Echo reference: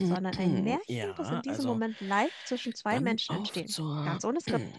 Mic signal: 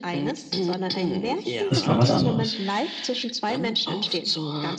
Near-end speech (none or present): present